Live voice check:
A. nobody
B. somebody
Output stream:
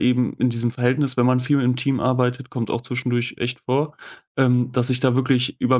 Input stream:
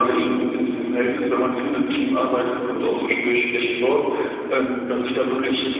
A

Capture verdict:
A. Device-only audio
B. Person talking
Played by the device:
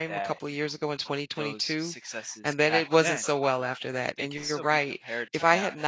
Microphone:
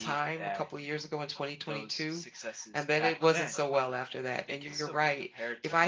A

